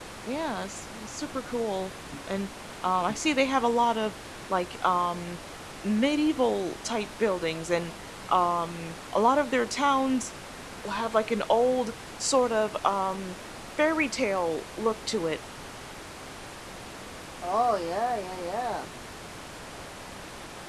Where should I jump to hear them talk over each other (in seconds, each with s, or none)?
none